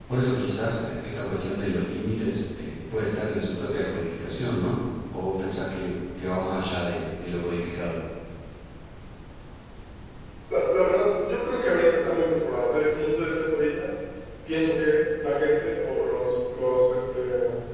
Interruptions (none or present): none